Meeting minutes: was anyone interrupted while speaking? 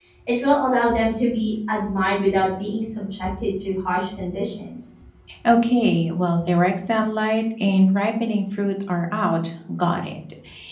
No

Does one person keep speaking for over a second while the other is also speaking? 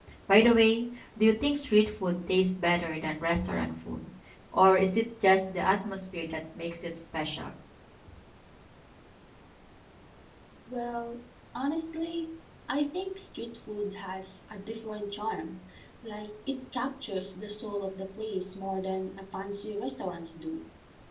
No

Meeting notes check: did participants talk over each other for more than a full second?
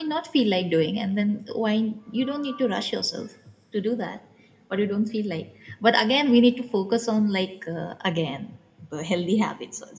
No

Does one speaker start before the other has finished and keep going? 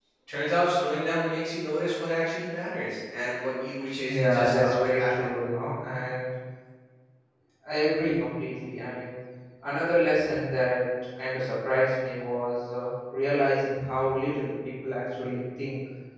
Yes, from 4.1 s

